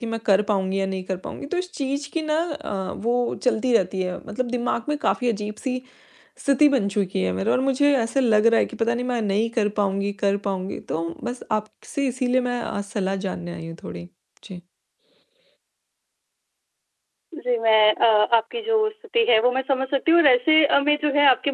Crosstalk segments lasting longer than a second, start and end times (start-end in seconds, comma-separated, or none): none